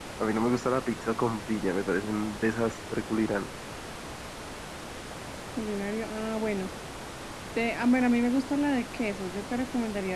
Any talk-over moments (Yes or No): No